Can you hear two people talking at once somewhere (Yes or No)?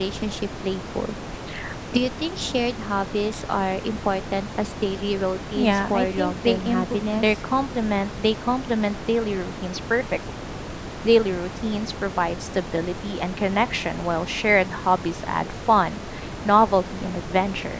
Yes